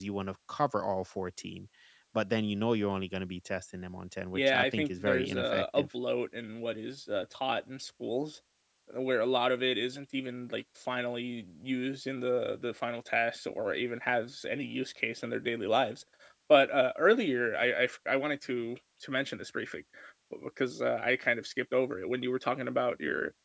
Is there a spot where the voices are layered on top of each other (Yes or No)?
Yes